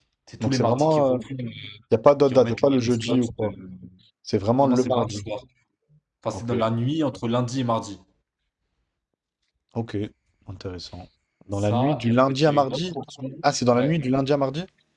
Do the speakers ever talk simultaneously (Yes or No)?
Yes